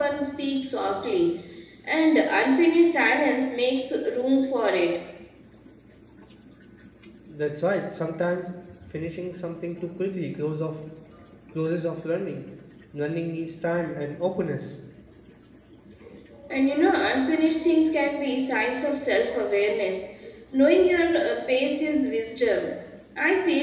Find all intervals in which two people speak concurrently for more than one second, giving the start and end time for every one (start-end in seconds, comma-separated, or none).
none